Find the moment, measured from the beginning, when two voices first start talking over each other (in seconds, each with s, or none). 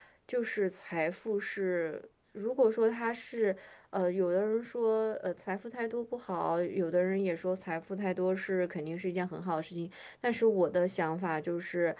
none